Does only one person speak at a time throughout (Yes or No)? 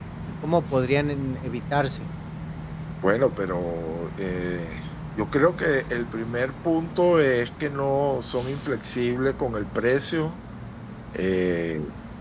Yes